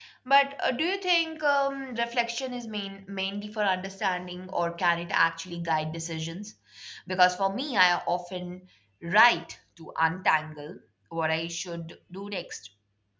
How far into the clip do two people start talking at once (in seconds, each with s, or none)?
none